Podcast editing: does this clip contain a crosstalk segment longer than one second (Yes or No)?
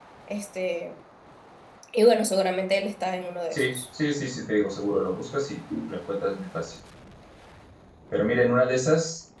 No